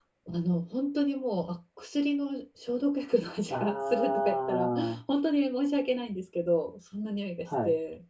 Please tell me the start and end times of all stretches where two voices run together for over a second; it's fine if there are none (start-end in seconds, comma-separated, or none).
3.5-5.0